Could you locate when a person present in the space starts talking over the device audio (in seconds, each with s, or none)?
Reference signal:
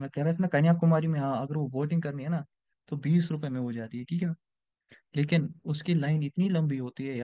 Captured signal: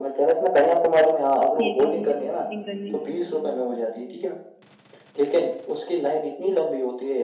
1.6 s